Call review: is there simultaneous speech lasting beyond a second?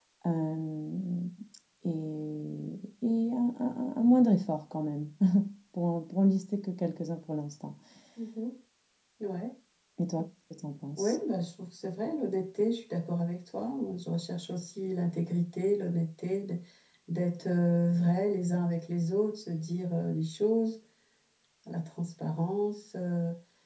No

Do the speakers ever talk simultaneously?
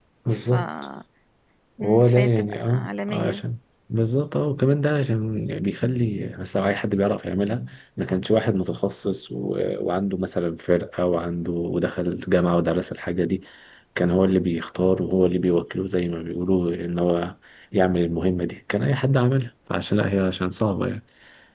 Yes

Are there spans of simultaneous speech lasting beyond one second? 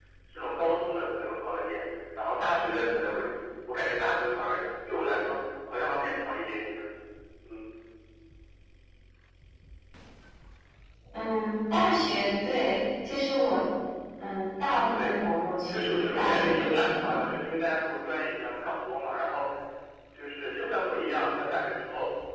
Yes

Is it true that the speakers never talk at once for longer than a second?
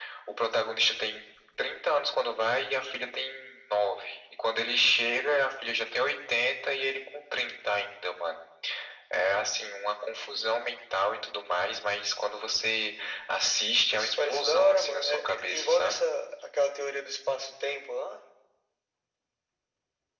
No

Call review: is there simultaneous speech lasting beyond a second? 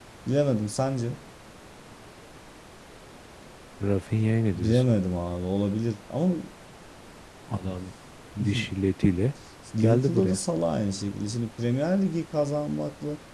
No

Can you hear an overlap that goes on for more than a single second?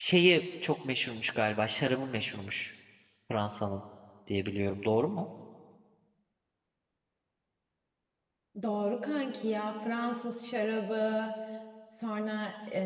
No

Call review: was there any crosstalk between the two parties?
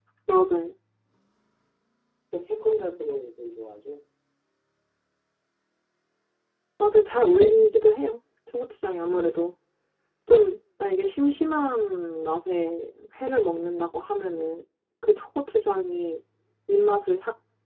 No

